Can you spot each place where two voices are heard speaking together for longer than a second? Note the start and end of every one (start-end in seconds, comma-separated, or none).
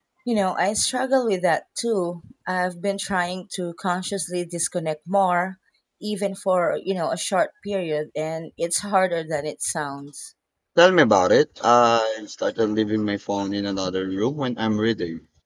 none